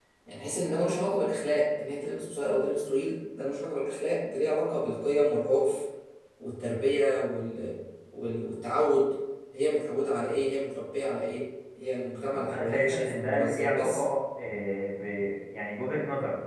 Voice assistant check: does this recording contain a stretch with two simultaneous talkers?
Yes, from 12.3 s

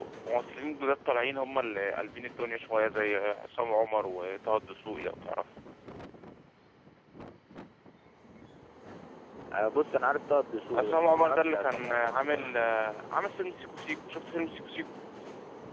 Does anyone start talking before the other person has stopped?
Yes, from 10.7 s

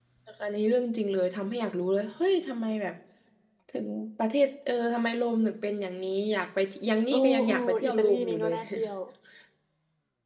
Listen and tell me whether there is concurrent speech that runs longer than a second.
Yes, from 7.1 s

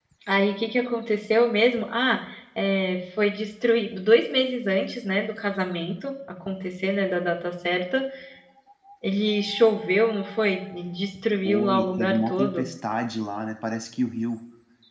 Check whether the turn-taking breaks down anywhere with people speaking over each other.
Yes, from 11.4 s

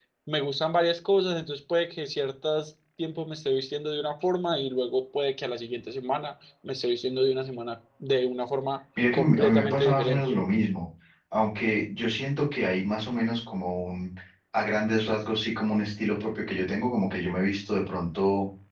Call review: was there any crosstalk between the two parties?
Yes, from 9.0 s

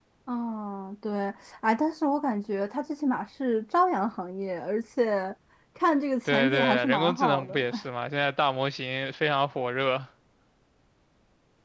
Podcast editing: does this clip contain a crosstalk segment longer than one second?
Yes, from 6.2 s

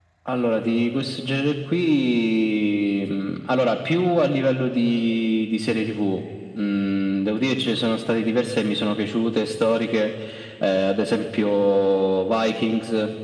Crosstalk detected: No

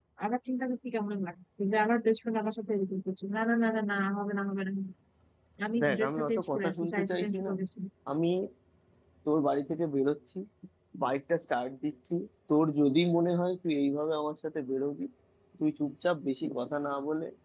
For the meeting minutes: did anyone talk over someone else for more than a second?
Yes, from 5.8 s

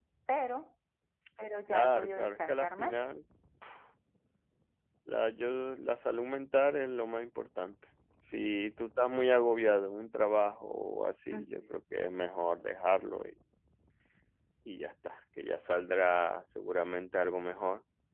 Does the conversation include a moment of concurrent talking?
Yes, from 1.7 s

